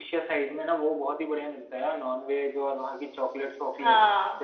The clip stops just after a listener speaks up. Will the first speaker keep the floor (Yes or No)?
Yes